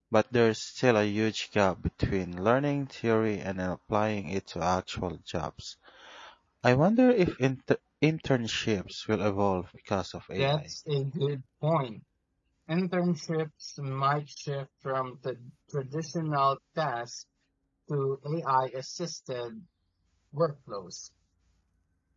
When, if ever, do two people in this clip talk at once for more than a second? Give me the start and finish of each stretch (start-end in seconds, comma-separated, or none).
none